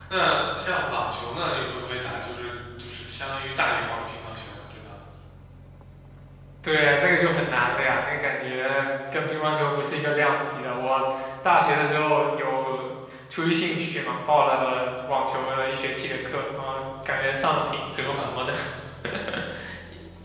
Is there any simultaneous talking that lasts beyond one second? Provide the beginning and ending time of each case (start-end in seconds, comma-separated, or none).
none